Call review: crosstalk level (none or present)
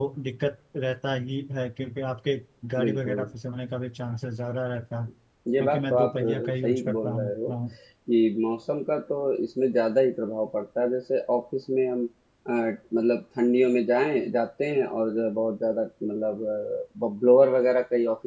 present